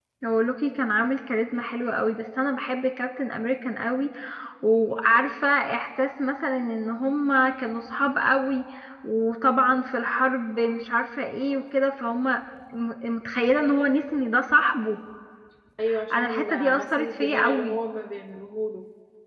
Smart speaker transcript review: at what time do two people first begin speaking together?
16.1 s

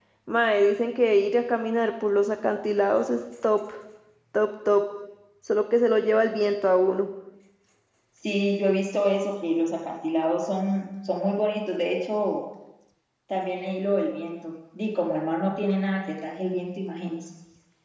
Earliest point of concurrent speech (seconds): none

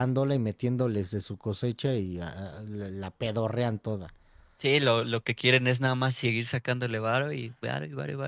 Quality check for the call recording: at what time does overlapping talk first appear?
none

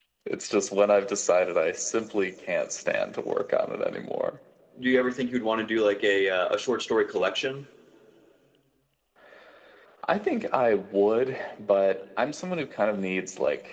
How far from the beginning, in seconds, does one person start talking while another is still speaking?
none

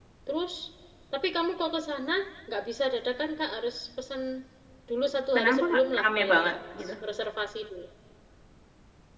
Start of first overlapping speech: 5.4 s

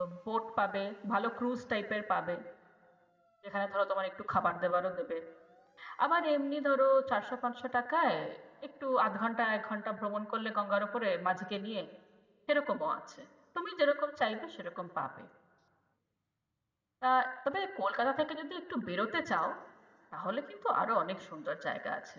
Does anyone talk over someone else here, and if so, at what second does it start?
none

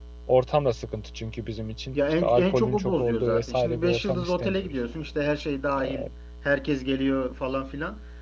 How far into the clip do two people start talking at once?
1.9 s

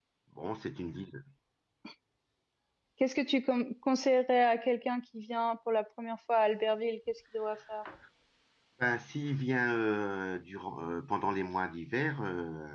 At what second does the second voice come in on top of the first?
none

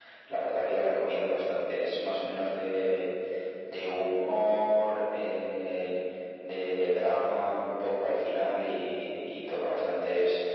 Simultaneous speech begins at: none

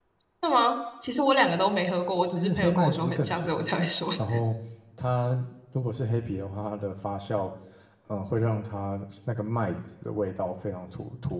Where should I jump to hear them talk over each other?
2.3 s

